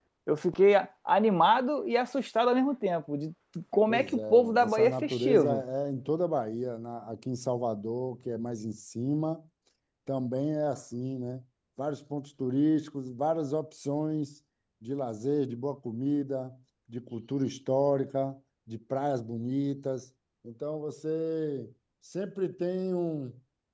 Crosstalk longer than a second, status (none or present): present